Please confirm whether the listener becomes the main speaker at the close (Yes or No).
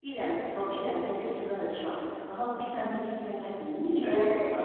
Yes